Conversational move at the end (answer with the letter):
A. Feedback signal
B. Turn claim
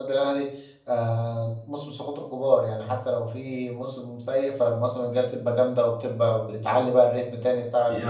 B